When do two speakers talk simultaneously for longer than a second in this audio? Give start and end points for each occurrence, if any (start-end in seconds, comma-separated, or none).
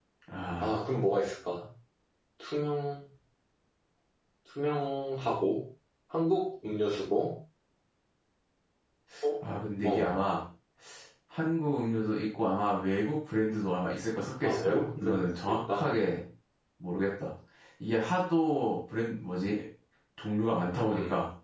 14.4-15.8